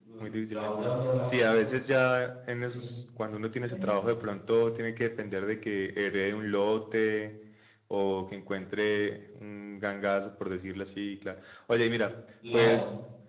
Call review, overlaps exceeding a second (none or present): none